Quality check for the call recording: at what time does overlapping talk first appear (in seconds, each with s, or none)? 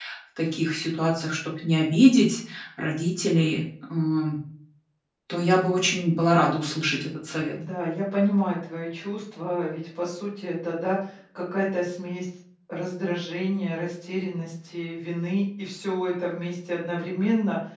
none